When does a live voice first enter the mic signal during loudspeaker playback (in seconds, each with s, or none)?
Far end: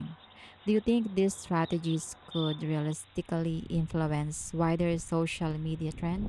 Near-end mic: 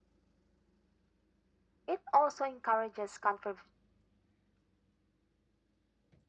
1.9 s